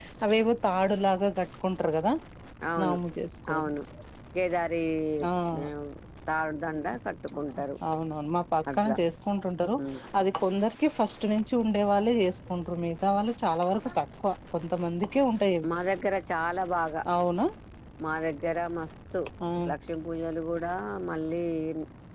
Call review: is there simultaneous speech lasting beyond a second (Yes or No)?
No